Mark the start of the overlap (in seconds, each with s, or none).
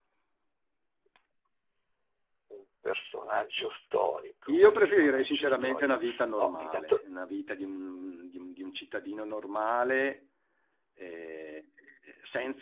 4.5 s